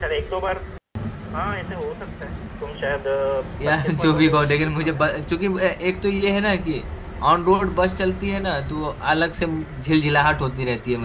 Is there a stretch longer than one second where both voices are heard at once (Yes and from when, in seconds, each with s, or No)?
Yes, from 3.6 s